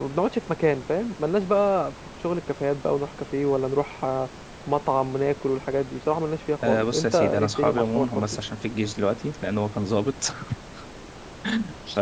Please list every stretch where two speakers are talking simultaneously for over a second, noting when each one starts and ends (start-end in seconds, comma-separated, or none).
6.6-8.4